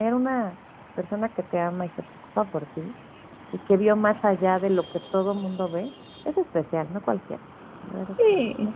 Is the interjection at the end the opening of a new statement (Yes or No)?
Yes